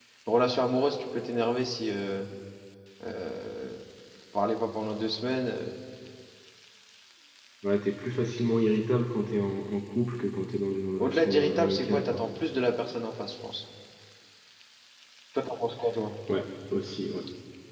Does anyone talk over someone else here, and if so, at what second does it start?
11 s

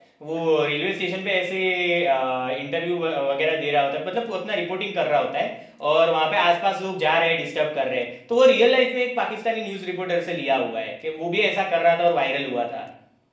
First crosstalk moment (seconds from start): none

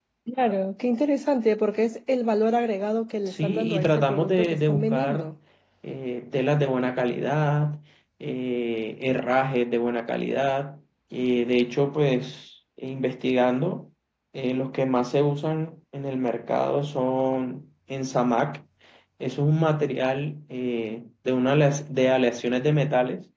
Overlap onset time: 3 s

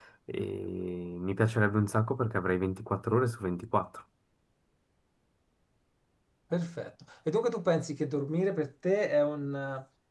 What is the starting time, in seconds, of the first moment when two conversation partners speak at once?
none

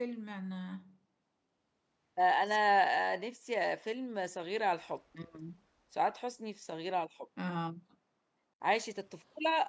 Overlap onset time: none

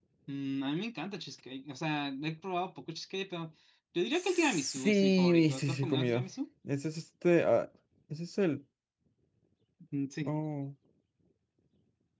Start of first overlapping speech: 4 s

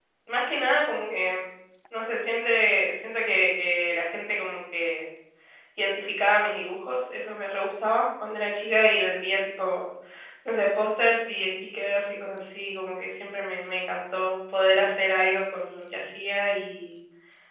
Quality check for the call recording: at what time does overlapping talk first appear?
none

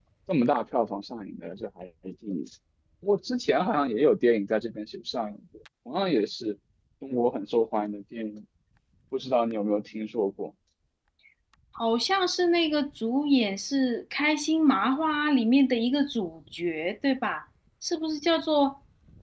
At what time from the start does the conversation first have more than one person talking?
none

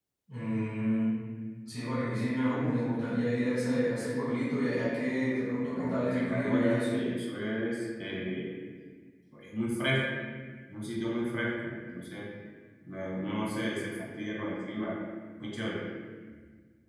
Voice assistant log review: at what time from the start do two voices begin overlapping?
6 s

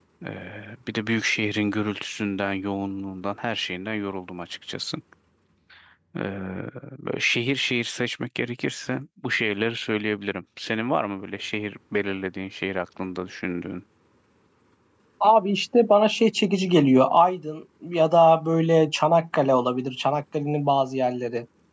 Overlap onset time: none

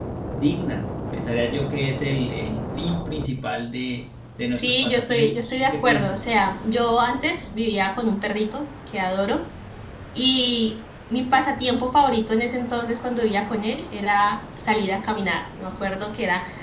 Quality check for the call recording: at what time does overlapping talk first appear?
5 s

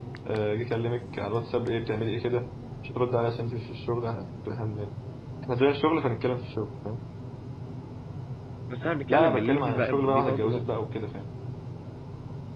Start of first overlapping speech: 9 s

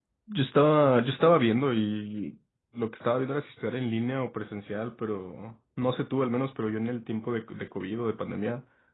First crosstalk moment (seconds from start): none

